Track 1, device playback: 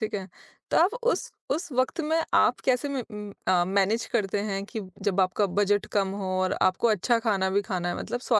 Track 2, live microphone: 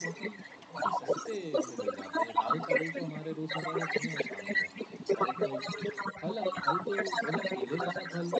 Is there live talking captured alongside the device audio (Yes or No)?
Yes